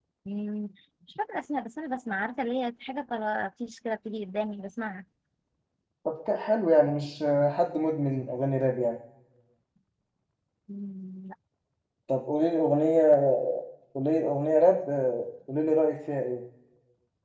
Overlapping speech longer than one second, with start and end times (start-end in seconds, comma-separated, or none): none